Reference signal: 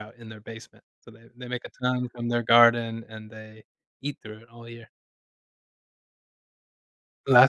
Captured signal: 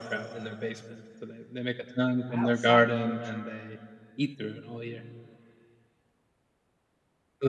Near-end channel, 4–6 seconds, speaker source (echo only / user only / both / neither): echo only